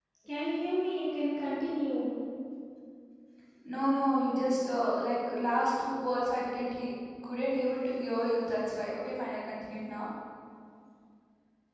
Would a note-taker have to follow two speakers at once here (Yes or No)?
No